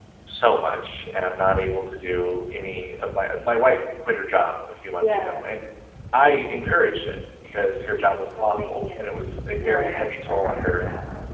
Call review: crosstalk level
present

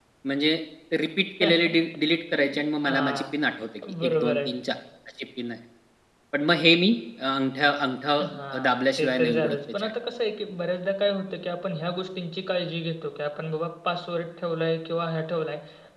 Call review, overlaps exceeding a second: present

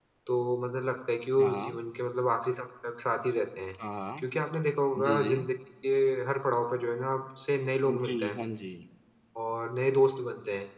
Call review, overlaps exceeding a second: none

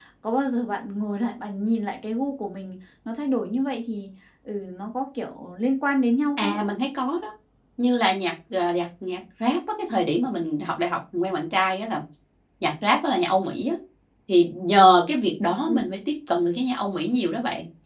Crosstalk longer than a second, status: none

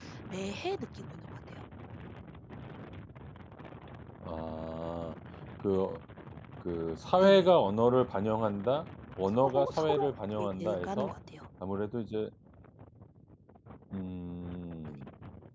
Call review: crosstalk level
present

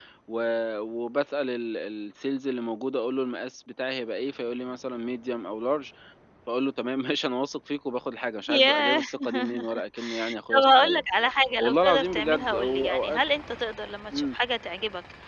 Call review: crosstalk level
present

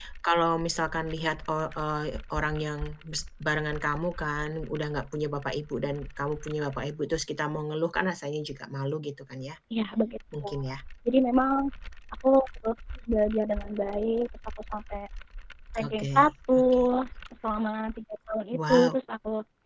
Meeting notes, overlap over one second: none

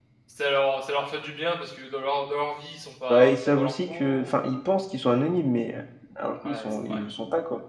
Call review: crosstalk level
present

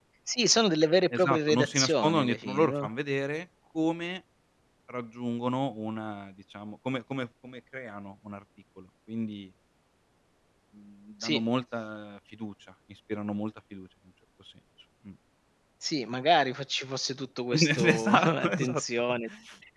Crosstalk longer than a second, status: present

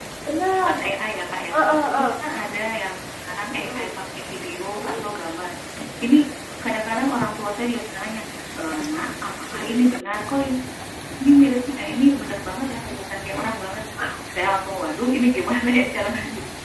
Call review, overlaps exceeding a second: none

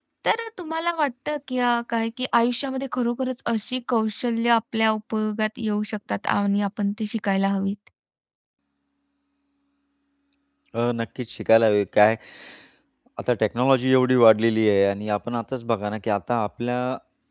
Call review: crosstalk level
none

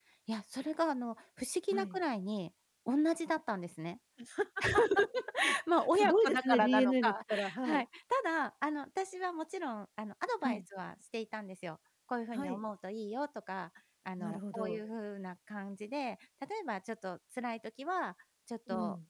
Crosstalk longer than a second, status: present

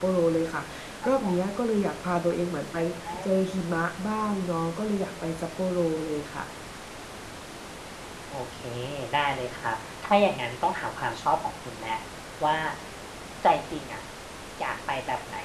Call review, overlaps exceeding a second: none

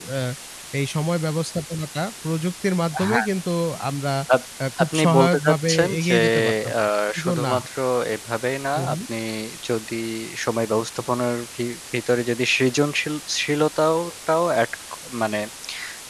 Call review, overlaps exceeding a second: present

